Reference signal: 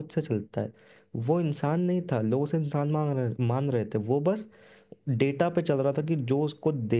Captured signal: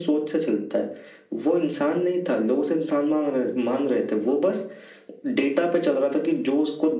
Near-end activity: none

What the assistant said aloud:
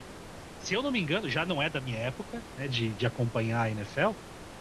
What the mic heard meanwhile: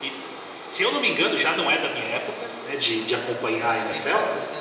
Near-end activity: present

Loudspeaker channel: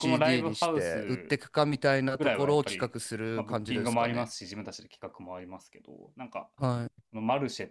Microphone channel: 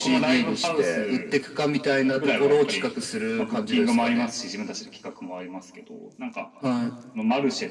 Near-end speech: none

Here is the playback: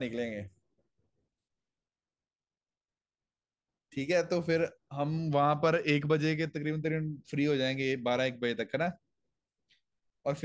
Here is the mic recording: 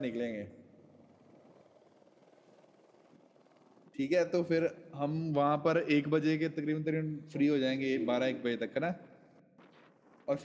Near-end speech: present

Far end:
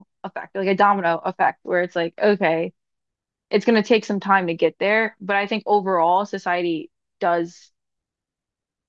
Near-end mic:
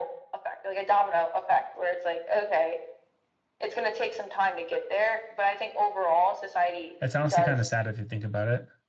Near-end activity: present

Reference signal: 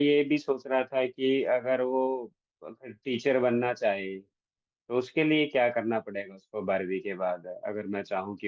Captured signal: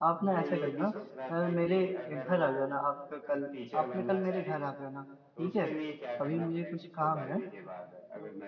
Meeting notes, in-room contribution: present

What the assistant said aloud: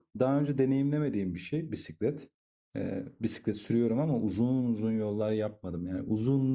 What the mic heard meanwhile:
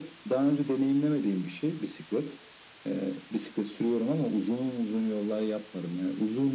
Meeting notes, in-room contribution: none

